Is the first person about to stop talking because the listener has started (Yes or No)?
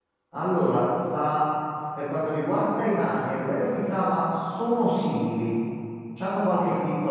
No